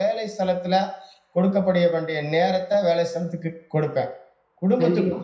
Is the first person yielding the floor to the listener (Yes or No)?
No